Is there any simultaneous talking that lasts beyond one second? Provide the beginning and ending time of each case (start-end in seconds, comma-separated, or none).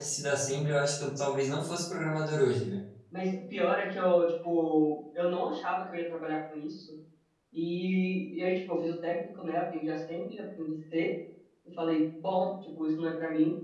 none